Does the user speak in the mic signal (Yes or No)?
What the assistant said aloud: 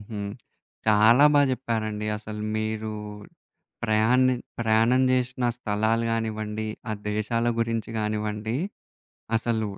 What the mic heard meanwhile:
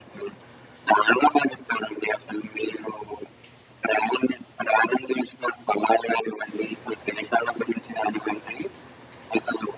No